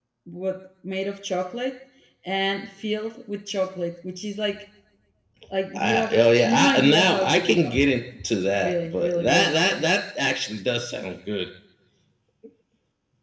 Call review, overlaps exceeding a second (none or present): present